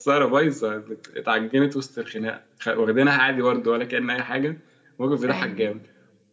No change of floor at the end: Yes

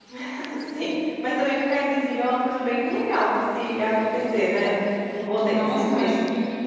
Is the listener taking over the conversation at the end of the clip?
Yes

